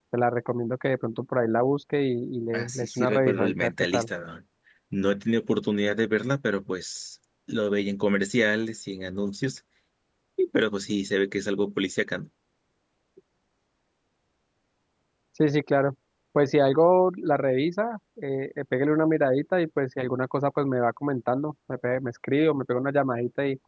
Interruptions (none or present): present